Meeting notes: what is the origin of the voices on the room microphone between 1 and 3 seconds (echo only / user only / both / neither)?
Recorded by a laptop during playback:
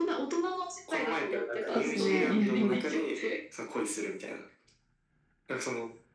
both